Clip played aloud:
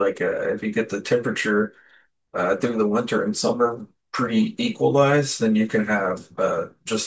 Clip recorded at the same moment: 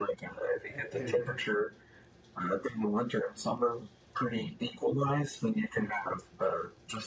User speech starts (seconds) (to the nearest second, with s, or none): 1 s